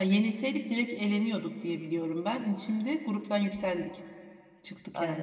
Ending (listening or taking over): taking over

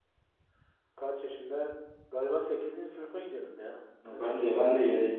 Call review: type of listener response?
taking over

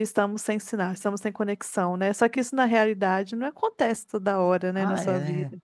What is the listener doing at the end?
taking over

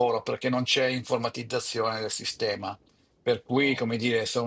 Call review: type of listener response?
listening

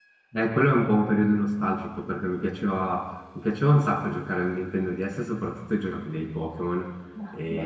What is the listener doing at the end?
listening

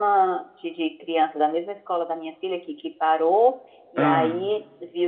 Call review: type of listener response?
listening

